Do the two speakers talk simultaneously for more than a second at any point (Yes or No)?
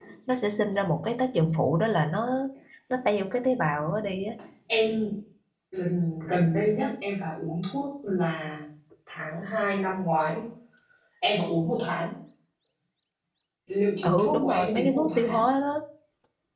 Yes